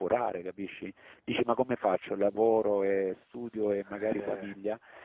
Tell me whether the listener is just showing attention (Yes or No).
Yes